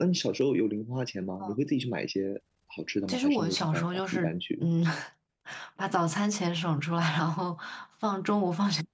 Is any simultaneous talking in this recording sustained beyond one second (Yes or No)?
Yes